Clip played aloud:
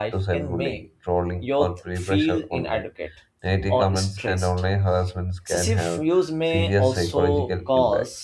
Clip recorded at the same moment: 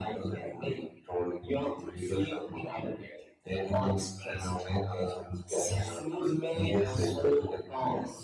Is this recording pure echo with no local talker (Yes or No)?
Yes